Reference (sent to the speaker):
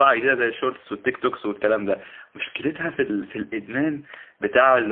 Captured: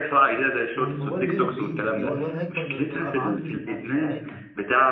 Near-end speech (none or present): present